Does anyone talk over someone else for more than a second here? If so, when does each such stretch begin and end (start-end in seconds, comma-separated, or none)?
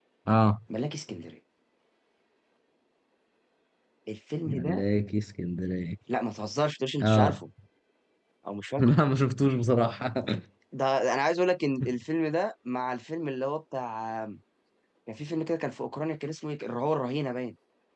none